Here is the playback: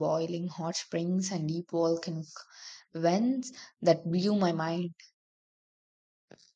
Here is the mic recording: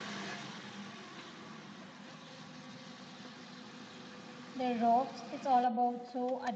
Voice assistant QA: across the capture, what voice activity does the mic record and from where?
user only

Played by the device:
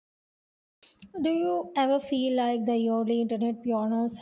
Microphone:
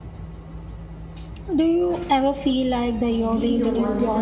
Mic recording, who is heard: both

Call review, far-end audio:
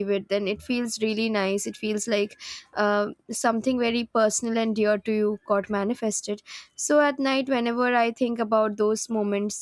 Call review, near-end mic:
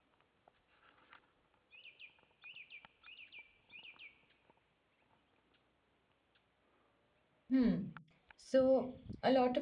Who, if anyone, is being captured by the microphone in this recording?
user only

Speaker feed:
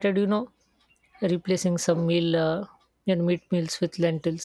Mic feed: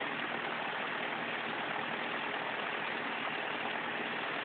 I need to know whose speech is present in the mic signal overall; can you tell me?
neither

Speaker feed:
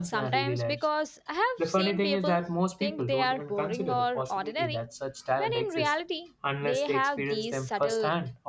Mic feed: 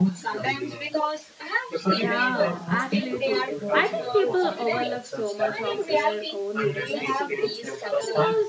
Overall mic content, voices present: both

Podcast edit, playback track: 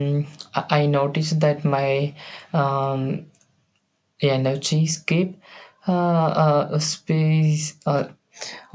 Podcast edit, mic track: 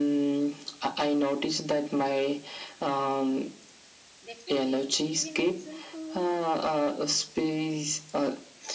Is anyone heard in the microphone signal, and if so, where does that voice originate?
both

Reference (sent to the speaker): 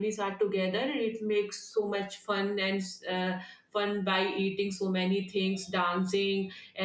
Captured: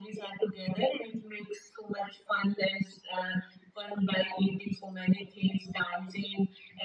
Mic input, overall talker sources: echo only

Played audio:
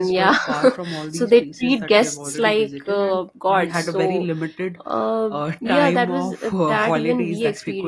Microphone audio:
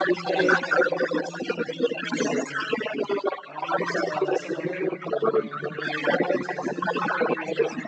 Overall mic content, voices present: both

